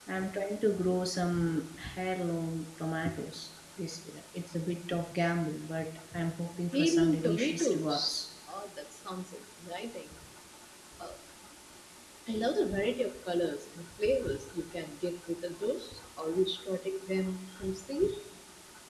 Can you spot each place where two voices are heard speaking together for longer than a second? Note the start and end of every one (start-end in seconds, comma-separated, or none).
6.7-8.2